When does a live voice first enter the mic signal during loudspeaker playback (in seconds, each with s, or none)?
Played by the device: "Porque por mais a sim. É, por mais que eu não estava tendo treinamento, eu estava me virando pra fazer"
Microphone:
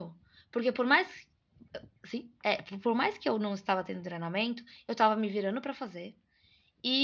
none